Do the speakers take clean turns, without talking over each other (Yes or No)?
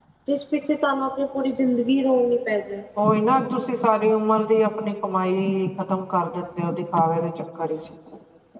Yes